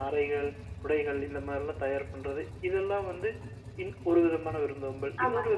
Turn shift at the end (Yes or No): No